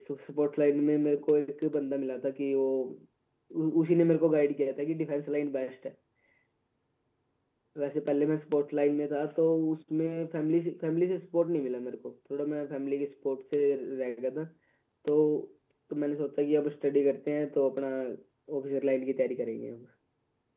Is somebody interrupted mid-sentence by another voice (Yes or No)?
No